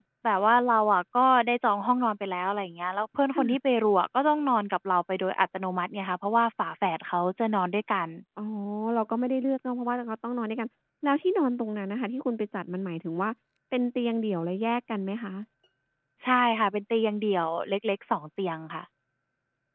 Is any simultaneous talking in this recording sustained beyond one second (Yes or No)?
No